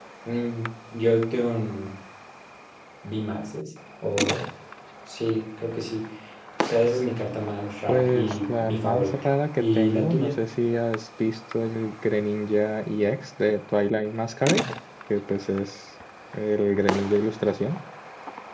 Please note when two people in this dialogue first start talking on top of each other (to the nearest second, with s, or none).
8 s